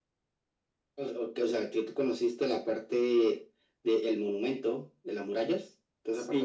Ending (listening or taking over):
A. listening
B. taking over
B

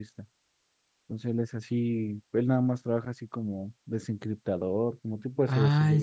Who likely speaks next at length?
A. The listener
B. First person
A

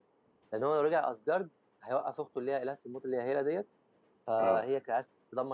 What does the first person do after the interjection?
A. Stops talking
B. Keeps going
B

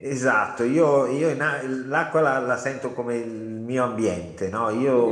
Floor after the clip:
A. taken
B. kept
A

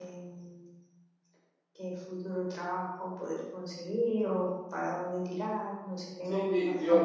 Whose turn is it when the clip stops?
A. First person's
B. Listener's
B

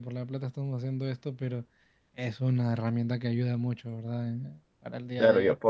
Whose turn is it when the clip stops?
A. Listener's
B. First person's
A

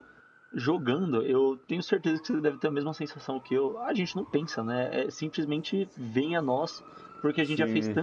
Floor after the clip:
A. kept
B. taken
A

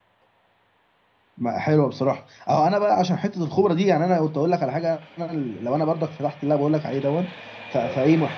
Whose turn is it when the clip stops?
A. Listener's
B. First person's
B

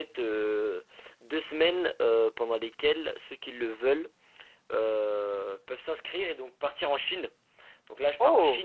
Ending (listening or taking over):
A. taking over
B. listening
B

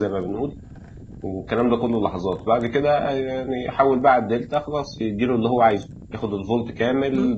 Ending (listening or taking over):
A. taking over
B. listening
B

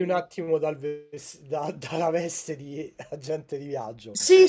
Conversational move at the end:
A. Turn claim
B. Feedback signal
A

